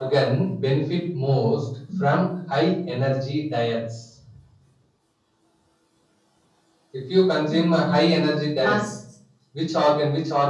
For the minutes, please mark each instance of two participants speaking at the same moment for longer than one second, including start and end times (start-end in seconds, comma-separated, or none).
7.5-8.8